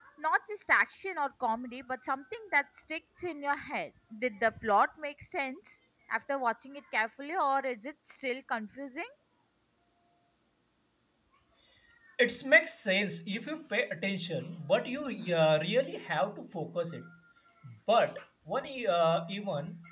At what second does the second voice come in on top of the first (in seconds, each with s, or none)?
none